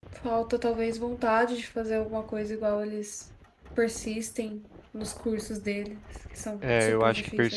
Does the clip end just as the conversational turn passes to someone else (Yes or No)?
Yes